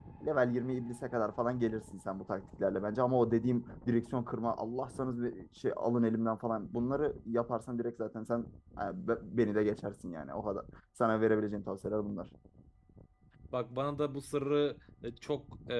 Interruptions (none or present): none